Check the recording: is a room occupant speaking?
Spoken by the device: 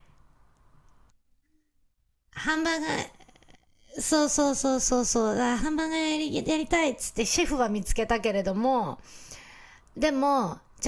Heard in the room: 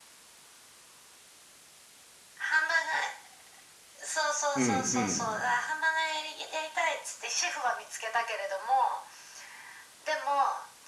Yes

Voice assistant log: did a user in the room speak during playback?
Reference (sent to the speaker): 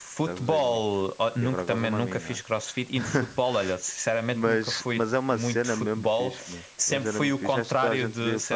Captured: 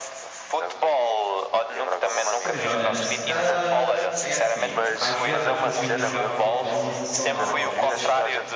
Yes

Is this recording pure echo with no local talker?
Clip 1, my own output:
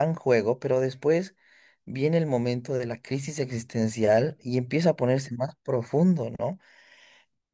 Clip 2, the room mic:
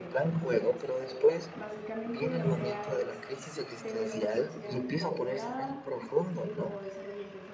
No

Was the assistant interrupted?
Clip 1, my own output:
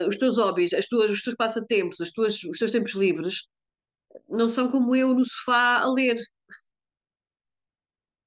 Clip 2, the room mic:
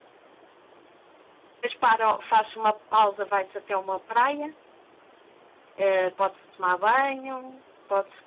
Yes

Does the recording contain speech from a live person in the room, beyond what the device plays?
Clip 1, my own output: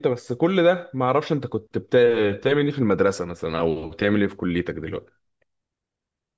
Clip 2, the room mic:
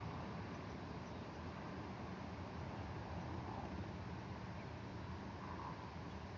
No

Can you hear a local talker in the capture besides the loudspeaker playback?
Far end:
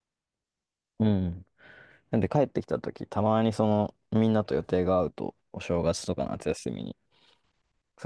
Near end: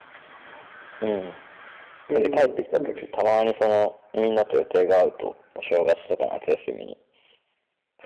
Yes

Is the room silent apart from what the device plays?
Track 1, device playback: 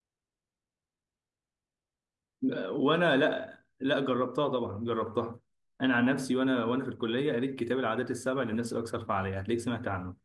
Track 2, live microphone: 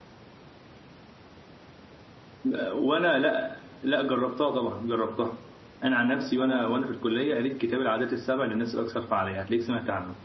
No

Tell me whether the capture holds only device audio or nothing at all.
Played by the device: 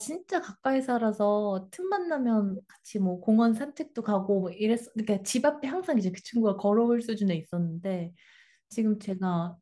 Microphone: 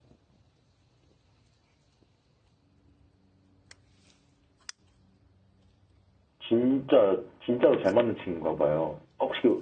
No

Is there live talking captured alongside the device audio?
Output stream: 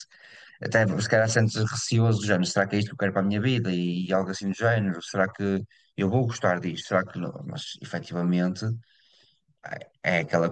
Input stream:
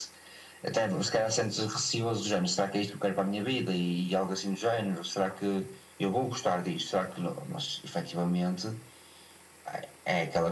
No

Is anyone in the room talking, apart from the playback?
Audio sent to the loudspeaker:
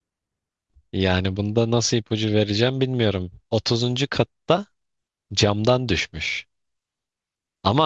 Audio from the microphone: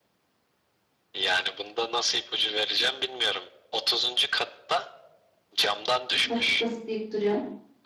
Yes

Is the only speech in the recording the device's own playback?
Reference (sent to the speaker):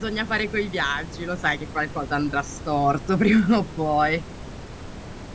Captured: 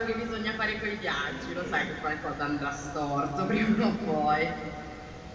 No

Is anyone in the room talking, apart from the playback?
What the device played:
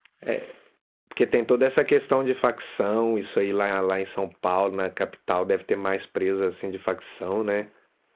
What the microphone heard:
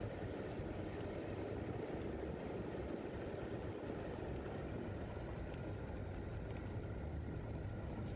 No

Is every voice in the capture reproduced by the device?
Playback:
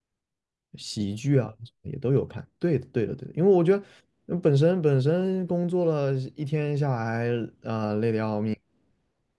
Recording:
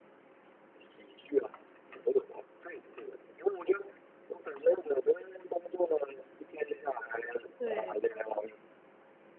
No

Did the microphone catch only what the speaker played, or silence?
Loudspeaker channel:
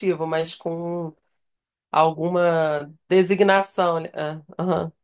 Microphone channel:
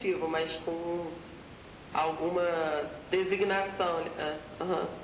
Yes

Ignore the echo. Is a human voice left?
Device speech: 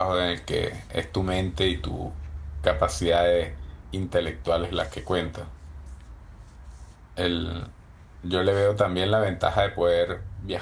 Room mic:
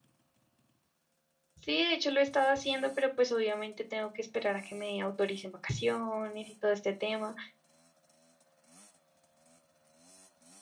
Yes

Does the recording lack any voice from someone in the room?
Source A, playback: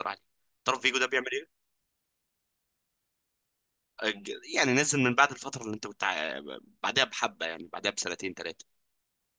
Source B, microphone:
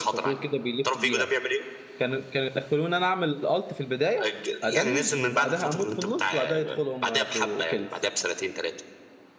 No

